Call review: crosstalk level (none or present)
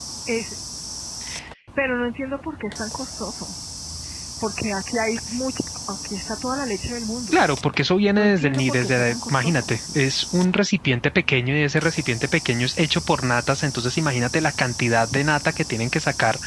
present